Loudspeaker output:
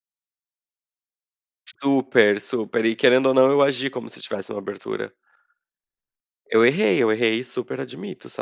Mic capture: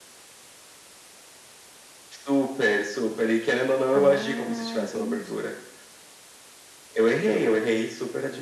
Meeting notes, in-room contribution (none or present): present